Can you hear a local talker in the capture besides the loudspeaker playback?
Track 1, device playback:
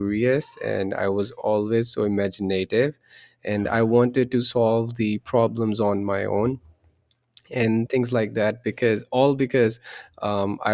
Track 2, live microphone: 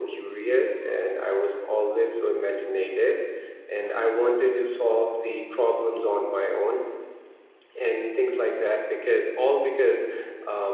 No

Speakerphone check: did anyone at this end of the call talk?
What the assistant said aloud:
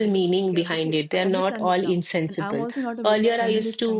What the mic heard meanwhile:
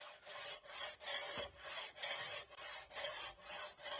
No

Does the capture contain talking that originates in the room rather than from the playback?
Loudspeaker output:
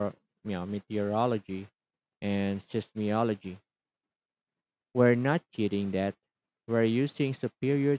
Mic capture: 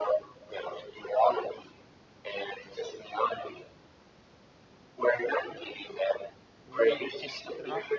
Yes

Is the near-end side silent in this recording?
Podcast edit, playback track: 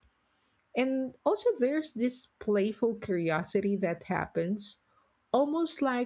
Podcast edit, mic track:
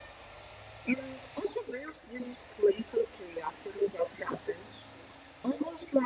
Yes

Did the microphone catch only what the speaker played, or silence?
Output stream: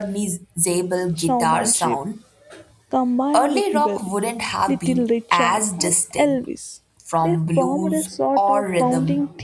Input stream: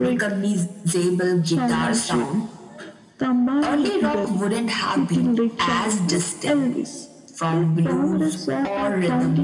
Yes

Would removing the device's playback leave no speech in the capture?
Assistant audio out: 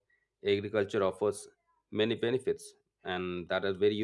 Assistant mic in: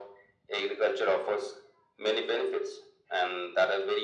Yes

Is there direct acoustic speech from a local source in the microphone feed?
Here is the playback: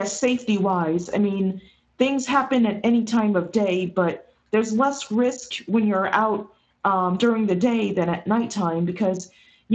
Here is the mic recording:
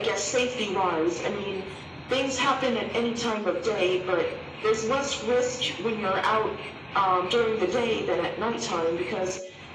No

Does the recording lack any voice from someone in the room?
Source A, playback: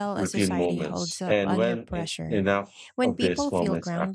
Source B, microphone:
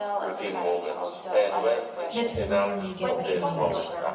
No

